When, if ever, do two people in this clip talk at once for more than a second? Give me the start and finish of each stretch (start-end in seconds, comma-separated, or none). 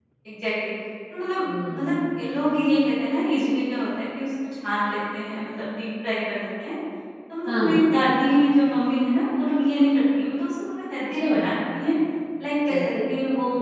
none